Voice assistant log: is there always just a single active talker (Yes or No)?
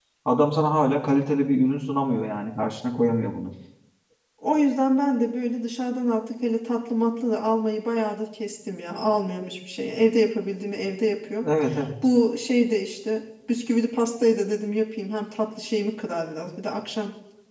Yes